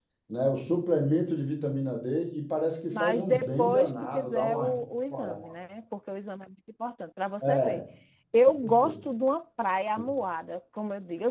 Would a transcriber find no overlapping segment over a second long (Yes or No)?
No